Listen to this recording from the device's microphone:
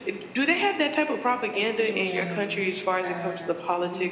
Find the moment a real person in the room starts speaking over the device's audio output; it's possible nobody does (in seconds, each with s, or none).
1.5 s